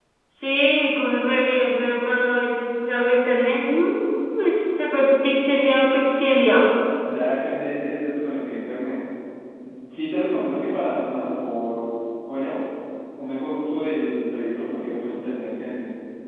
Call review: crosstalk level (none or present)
none